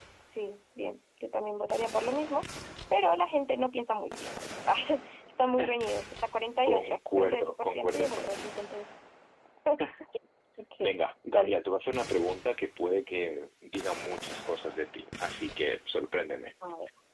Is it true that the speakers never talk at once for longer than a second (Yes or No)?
No